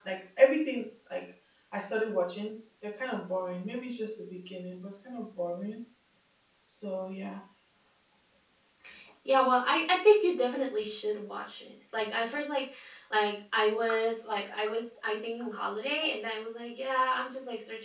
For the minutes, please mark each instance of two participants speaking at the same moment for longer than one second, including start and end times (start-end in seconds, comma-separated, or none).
none